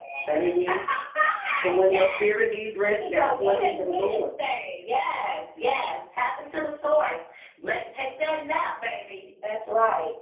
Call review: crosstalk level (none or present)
present